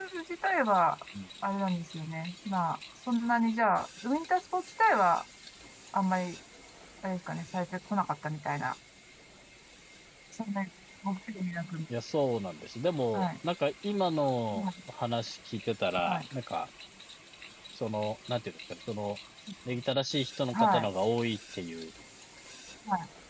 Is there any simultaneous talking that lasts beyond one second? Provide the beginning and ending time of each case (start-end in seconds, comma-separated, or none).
none